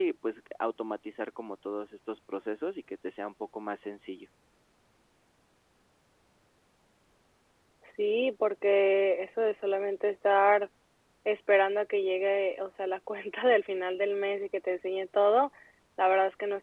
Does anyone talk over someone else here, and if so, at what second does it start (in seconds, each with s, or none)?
none